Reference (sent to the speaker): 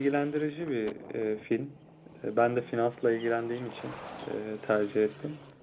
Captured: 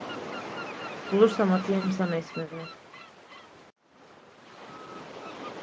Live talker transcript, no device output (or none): Bulursam atayım sana ismini.